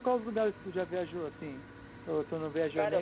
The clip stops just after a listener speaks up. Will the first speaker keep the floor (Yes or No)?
No